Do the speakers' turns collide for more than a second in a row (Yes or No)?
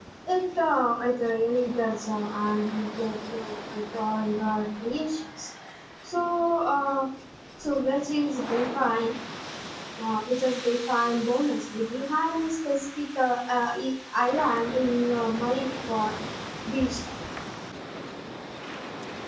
No